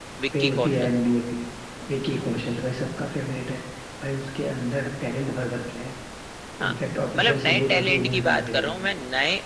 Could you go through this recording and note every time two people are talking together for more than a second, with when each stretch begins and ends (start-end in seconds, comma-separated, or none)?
7.2-8.9